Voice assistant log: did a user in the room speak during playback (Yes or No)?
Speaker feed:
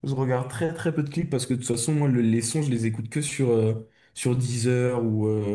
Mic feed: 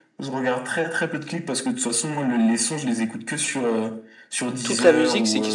Yes